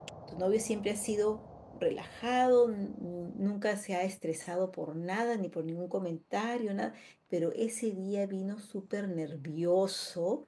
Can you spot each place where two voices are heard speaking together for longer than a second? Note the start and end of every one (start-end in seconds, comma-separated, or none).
none